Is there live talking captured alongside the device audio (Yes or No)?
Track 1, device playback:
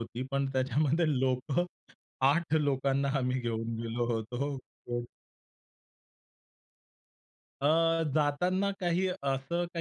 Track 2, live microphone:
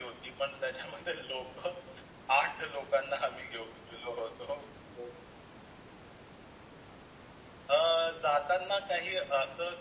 No